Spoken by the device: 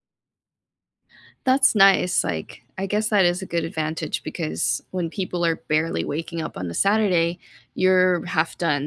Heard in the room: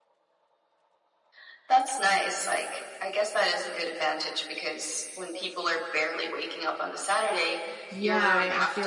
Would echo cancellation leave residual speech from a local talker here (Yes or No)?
Yes